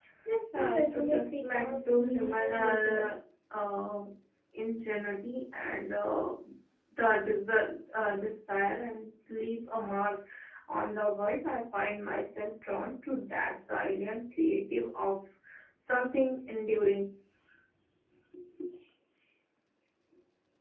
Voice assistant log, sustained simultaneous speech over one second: present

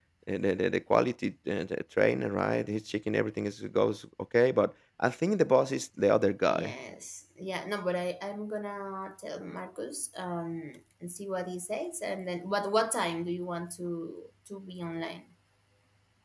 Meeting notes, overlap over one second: none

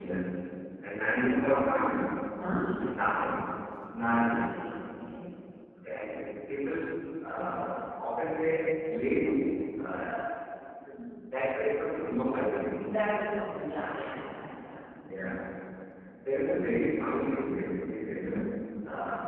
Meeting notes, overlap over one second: none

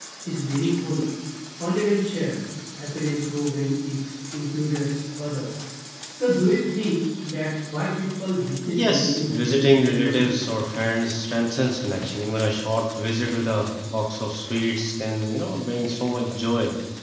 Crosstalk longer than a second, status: present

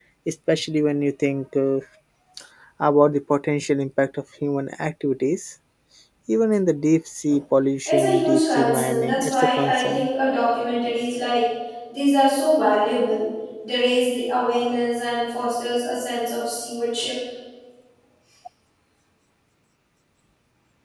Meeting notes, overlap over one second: present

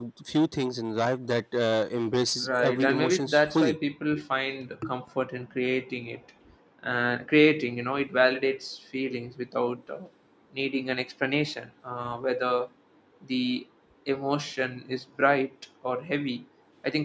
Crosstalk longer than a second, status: present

